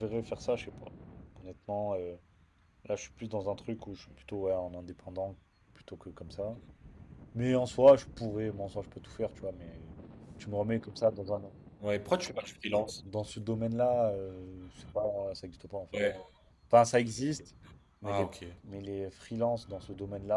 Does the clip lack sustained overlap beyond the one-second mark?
Yes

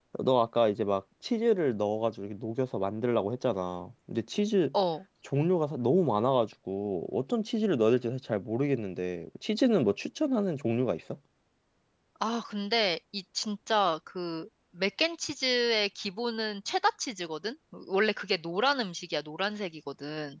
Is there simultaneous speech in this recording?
No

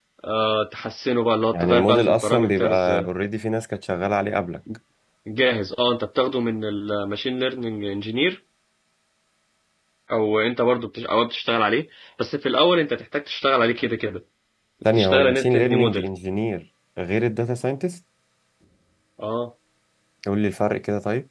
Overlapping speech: Yes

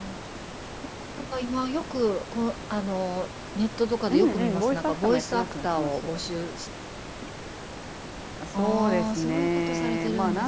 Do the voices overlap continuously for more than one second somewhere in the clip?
Yes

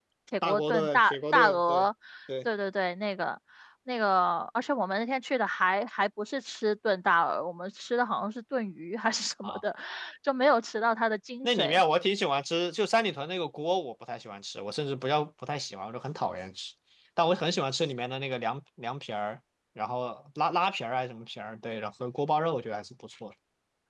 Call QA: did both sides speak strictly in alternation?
No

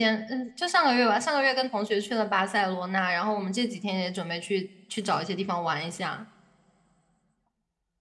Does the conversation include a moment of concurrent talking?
No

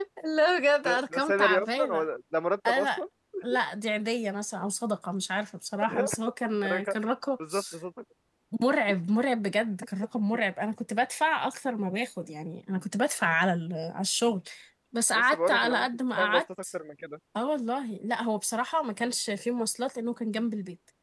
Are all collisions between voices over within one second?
No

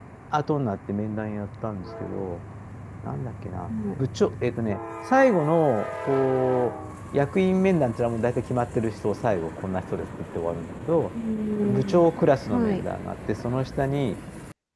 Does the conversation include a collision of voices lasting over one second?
No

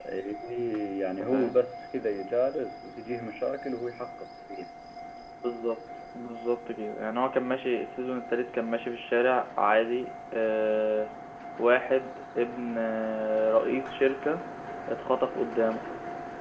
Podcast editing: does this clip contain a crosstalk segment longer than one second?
No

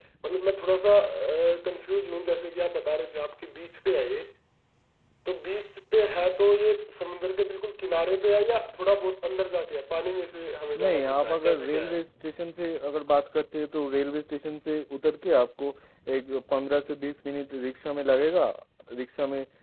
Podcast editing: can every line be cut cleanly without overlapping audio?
No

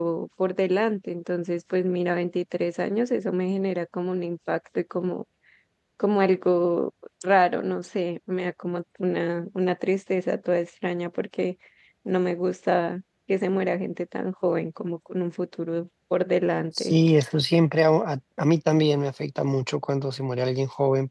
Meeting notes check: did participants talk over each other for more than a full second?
No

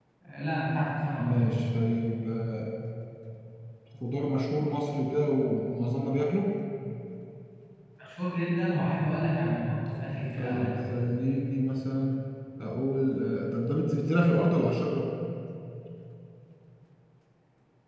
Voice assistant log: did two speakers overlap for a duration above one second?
No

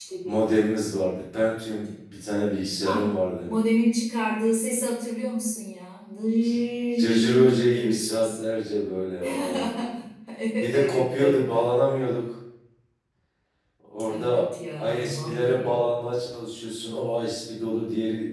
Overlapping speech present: Yes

